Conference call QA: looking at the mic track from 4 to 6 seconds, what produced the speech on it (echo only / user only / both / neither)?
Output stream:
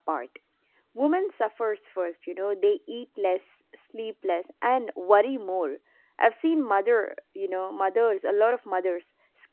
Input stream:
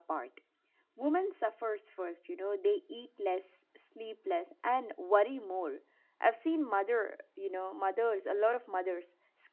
echo only